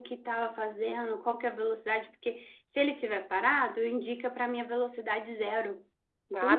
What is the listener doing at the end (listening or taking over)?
taking over